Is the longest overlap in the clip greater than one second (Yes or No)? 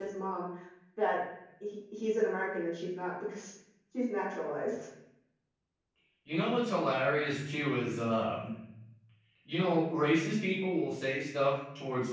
No